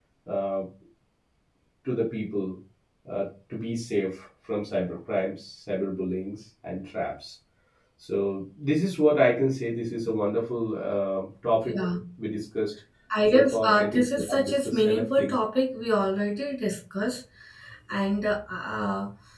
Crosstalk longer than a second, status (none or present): present